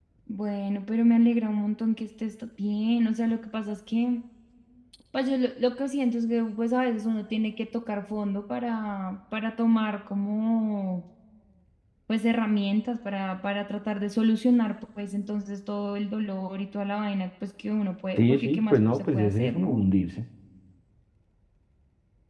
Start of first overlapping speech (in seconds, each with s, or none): 18.2 s